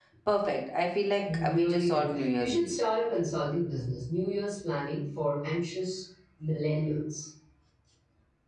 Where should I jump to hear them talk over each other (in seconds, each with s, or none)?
1.2 s